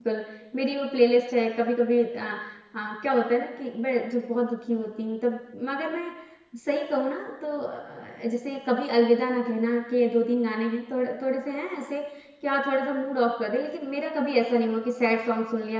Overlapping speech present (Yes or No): No